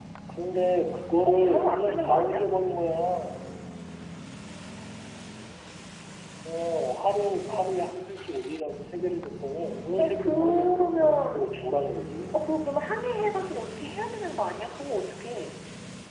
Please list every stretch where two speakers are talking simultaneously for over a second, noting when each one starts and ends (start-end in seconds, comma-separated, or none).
1.2-2.5, 10.0-11.4